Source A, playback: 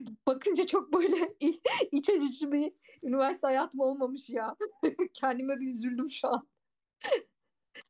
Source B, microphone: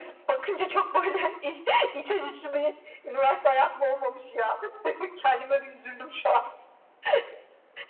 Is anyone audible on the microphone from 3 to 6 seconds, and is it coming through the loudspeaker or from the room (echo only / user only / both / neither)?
echo only